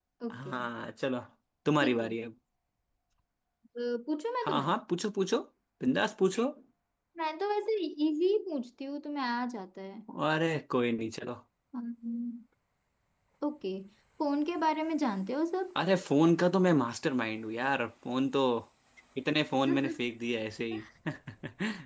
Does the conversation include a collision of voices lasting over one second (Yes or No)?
No